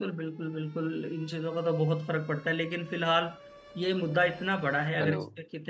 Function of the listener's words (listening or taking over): listening